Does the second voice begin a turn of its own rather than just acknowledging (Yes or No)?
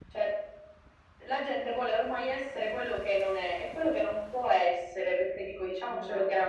No